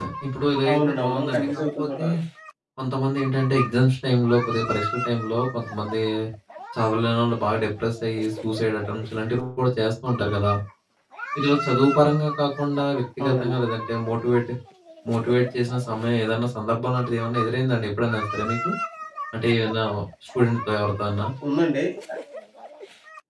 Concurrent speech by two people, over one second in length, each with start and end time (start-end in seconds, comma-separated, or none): 0.7-2.0